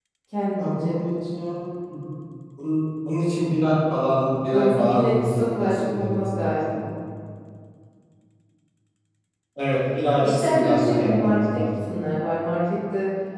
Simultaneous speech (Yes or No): Yes